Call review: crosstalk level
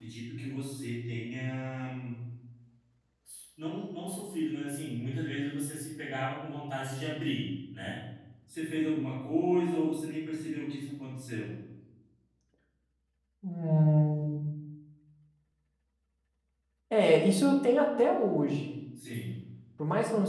none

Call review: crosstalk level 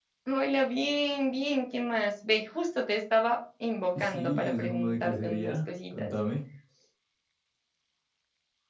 present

